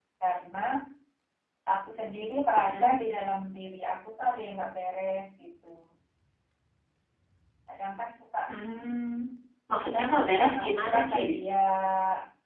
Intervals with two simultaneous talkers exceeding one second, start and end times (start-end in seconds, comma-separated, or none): 9.8-11.2